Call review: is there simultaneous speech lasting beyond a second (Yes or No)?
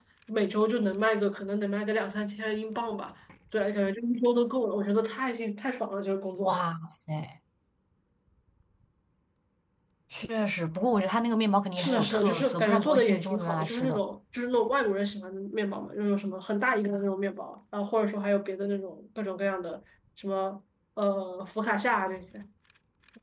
Yes